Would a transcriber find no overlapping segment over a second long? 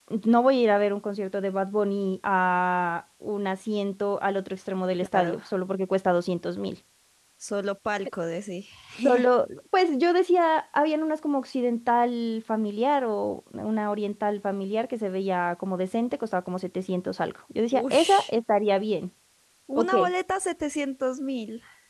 Yes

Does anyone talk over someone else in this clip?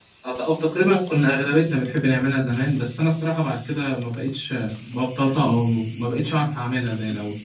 No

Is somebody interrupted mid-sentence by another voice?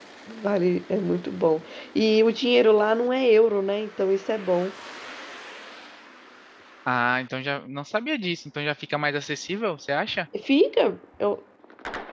No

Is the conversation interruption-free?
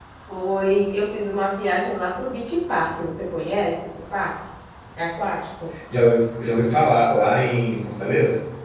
Yes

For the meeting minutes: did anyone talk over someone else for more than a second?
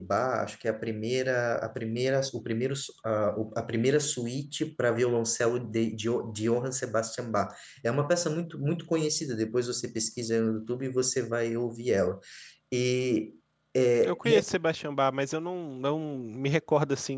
No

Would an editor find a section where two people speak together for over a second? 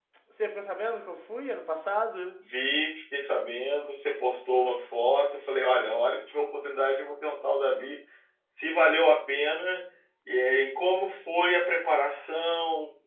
No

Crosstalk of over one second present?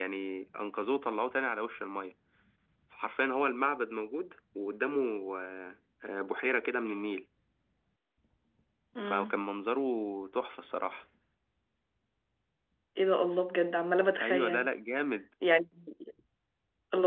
No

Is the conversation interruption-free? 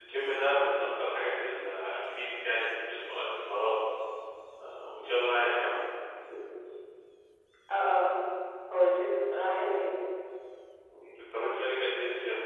Yes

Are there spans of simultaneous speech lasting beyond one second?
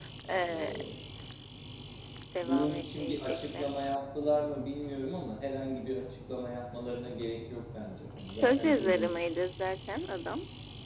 Yes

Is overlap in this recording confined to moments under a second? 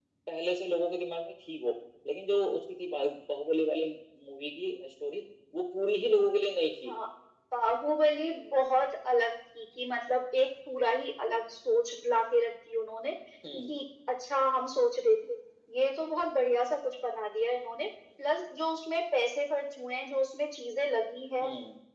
Yes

